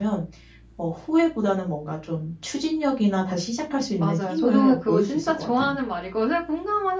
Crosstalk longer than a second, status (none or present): present